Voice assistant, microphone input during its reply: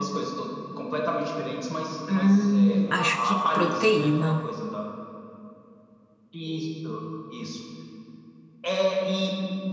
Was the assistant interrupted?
Yes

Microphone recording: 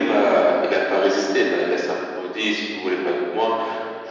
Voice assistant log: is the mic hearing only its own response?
Yes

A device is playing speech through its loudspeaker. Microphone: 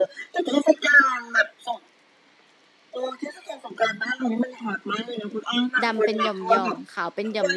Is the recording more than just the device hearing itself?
Yes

